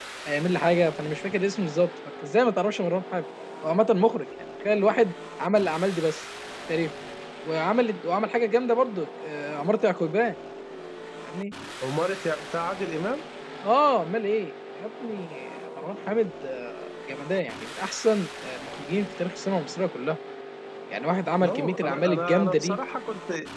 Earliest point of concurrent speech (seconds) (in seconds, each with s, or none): 21.4 s